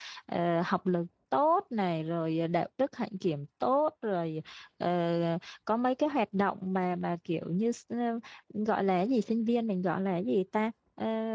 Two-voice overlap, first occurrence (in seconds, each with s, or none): none